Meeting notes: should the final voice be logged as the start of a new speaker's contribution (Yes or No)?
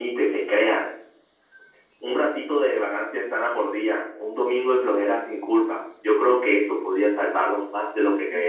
Yes